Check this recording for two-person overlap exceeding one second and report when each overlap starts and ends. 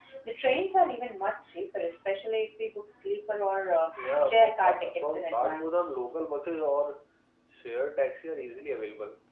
4.0-5.8

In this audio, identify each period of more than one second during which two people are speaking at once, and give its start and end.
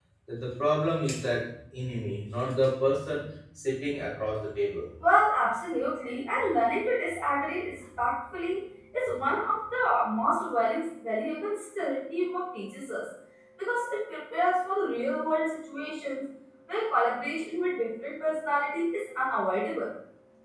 none

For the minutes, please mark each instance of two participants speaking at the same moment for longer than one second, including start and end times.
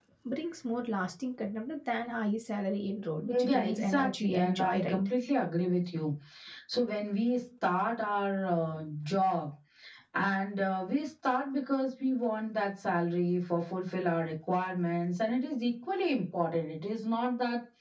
3.5-5.0

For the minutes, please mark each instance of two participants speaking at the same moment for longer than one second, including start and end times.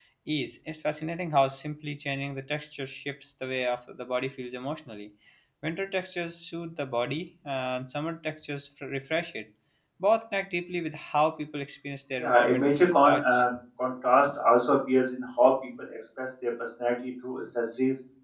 12.2-13.4

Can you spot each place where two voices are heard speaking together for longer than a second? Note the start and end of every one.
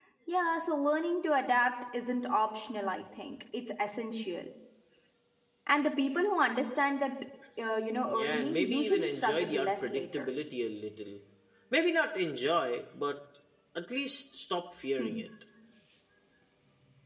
8.1-10.3

